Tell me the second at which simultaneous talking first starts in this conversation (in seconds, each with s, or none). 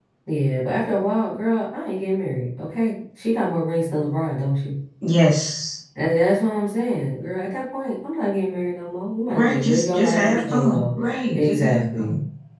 9.3 s